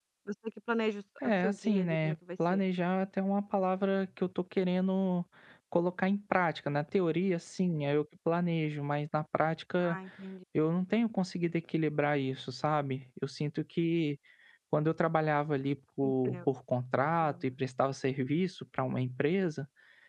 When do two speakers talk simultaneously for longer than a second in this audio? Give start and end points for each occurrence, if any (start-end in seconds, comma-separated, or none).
1.2-2.6